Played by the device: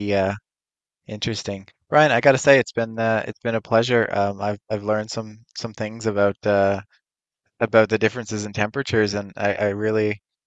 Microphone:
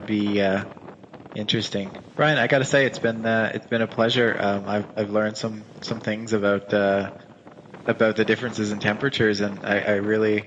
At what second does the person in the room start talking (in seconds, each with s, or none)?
none